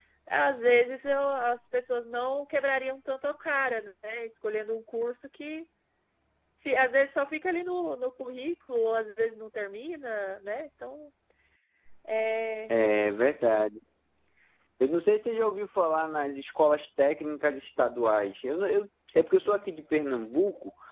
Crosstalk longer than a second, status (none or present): none